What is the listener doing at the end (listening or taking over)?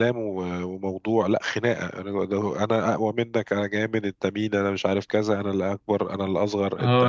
taking over